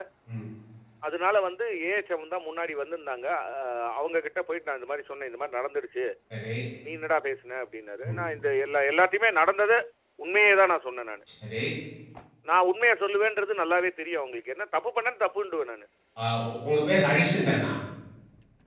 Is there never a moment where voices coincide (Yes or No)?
Yes